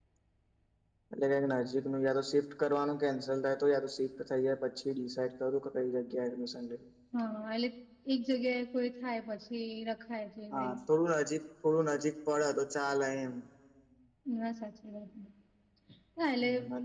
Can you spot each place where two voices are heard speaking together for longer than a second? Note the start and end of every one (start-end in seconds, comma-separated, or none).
none